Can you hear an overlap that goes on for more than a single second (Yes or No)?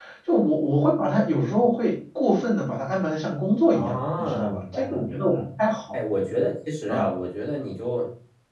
Yes